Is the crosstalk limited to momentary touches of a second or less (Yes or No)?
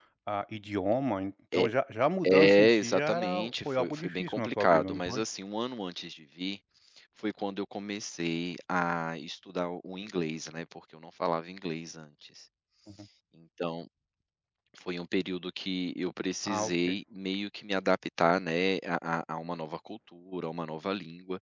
No